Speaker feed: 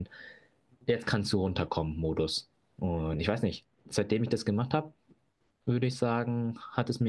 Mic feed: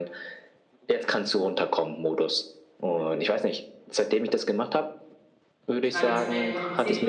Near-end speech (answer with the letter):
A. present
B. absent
A